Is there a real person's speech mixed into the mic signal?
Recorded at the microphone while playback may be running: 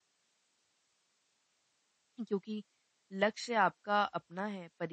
Yes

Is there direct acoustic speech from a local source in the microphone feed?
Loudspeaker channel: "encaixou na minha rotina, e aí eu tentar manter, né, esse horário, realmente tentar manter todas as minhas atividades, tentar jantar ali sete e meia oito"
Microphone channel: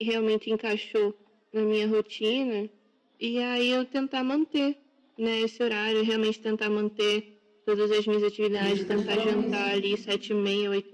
Yes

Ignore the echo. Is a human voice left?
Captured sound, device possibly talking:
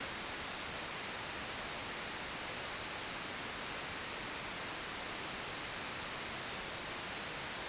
No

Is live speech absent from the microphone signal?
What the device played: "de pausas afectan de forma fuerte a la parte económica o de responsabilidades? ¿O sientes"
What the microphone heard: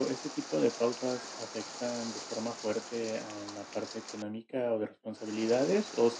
Yes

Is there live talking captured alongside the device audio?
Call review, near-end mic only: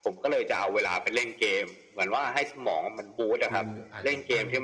Yes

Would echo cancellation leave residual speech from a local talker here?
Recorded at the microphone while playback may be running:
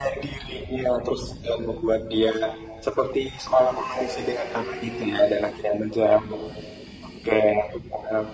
No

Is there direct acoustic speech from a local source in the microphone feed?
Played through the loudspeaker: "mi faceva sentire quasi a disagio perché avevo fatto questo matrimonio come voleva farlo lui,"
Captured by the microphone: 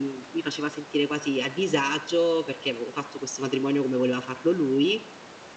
No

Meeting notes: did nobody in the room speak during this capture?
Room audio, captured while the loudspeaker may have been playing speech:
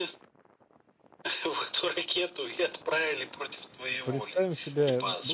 No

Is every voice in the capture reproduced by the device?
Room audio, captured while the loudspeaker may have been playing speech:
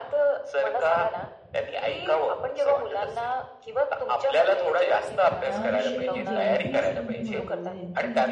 No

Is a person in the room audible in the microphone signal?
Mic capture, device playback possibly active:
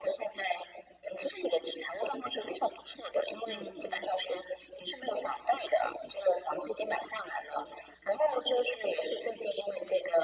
Yes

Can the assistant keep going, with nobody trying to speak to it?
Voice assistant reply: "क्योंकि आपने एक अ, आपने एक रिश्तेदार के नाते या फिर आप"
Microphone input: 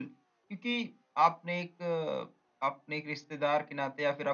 Yes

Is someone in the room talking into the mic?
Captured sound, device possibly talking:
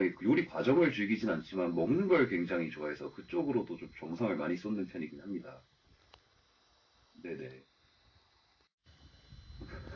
No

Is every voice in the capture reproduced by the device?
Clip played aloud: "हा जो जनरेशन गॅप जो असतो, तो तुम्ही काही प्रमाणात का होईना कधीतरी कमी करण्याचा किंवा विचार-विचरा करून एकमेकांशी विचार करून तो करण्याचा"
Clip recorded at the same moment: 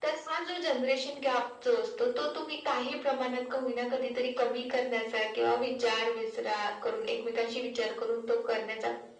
Yes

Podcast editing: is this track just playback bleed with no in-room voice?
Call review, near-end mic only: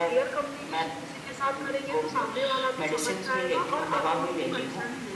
Yes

